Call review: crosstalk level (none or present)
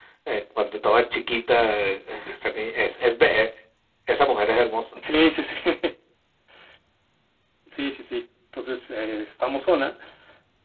none